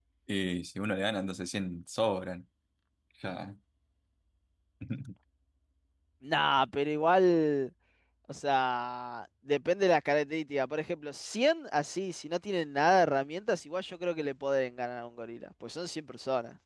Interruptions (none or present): none